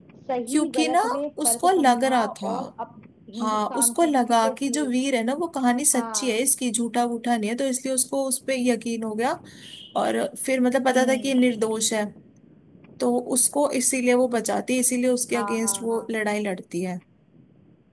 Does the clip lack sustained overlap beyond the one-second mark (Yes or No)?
No